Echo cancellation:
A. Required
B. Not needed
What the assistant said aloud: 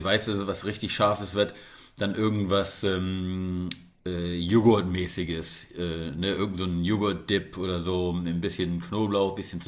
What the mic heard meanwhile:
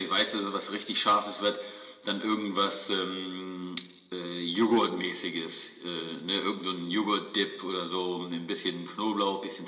A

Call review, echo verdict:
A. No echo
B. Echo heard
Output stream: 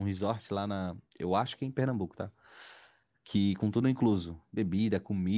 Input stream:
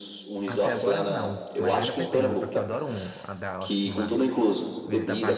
B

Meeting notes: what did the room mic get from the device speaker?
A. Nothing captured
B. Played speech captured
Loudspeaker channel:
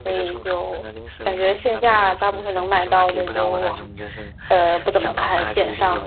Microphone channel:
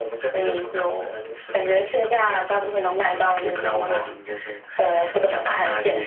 B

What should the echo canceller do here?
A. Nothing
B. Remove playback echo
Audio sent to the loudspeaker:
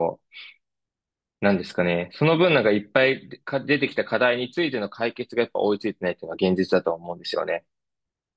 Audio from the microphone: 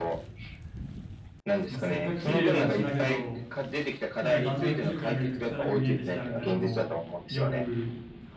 B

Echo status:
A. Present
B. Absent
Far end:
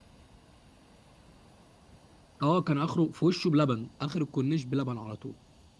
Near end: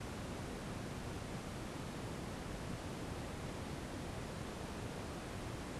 B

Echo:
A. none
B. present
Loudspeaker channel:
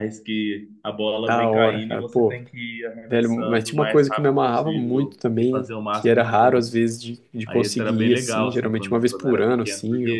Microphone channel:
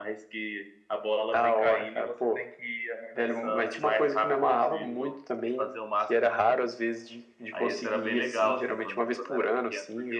B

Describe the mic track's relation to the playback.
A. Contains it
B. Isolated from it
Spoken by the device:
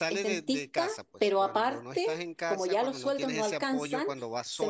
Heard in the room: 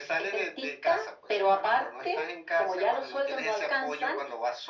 A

